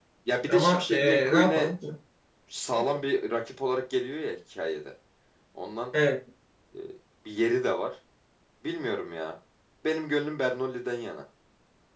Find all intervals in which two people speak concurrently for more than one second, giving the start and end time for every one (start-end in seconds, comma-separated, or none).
0.5-1.7